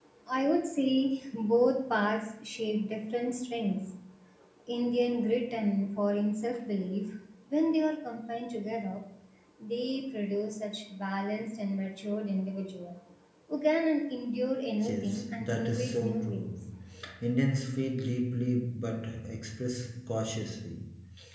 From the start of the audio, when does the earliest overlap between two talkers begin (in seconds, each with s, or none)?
14.8 s